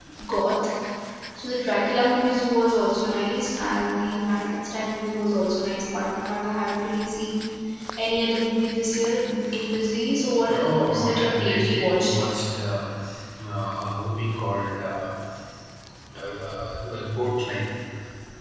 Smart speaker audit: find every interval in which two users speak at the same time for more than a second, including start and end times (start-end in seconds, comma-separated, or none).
10.4-12.2